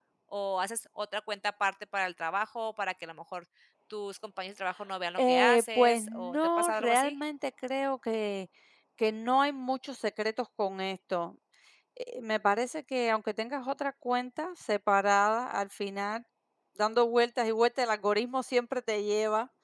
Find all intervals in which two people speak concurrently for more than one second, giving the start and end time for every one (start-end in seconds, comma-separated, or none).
5.2-7.2